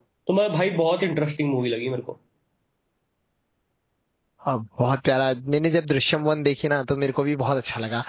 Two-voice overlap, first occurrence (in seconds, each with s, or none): none